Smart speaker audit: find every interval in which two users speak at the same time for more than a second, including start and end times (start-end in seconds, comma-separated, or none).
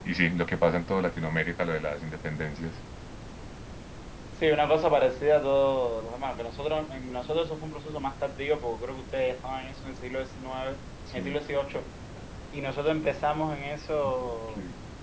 none